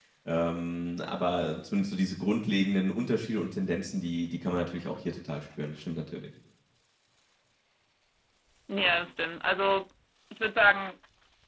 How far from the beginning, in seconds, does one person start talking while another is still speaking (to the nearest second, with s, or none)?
none